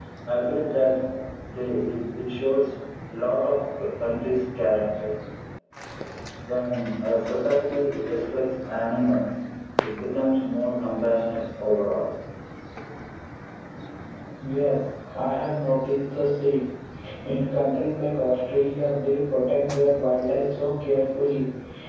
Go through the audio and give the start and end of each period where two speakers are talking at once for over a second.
none

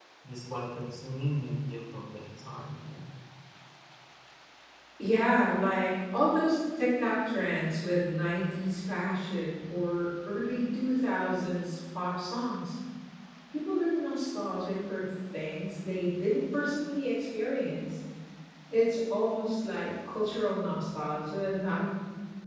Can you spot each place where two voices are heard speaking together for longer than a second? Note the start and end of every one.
none

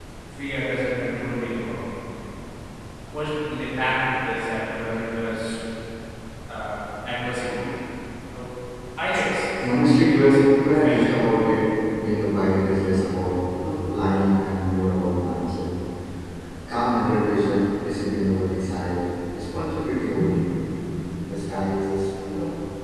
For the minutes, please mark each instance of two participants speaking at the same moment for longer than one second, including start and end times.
9.9-11.3

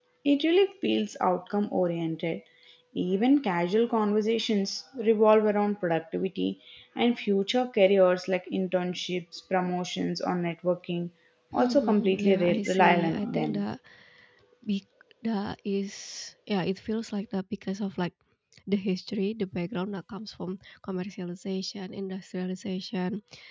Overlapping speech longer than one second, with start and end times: 11.6-13.6

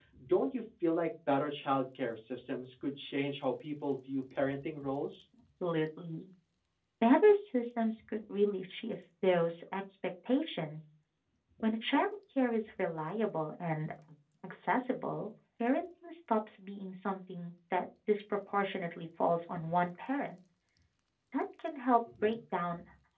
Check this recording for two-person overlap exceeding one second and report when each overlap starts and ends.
none

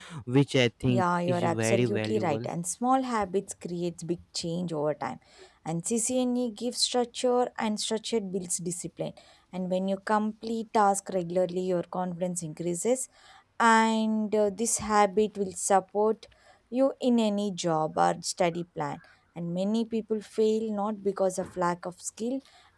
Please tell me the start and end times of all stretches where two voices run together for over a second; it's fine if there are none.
0.9-2.5

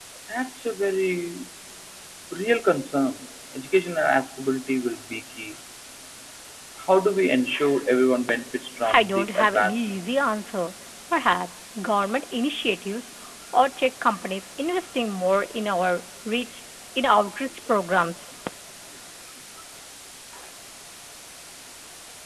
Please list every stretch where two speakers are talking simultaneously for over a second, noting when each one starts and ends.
8.9-10.2

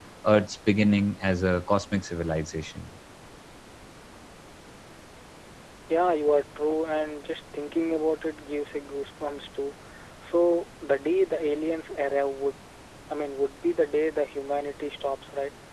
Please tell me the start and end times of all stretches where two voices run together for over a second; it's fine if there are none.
none

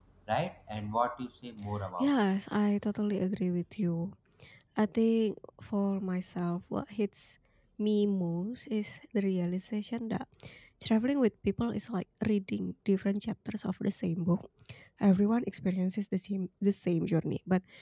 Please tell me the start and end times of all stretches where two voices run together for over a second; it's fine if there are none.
none

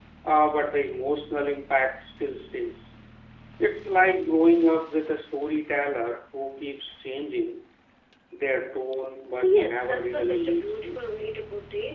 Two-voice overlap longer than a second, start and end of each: 9.4-11.0

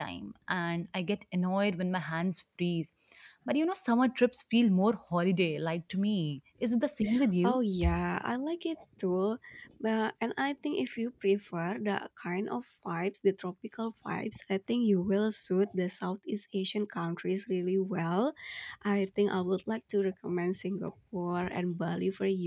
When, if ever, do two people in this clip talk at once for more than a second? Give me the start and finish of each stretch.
none

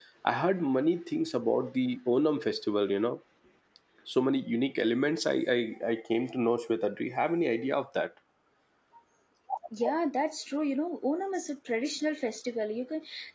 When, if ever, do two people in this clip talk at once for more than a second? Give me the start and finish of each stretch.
none

